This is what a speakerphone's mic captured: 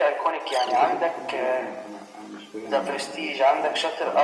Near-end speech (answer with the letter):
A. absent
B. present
B